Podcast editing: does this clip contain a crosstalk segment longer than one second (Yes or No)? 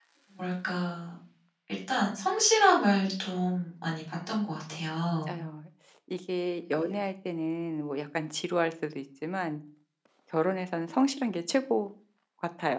No